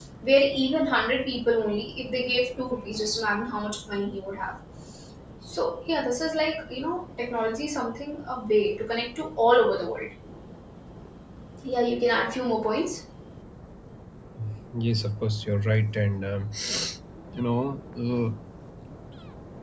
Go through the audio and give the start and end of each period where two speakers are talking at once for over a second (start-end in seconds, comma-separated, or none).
none